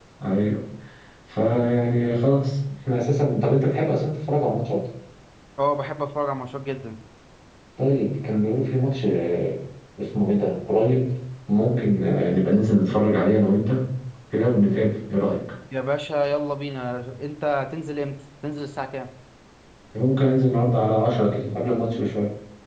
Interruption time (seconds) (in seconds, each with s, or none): none